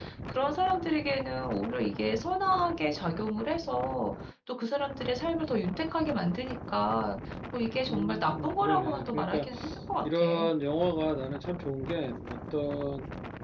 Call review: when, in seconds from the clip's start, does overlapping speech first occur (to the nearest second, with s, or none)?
8 s